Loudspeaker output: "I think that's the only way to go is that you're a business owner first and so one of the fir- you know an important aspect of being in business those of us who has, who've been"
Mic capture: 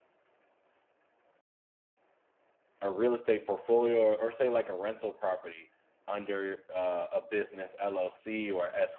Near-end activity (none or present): present